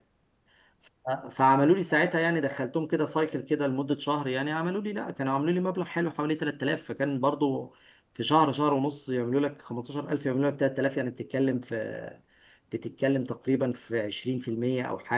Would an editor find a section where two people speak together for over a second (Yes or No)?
No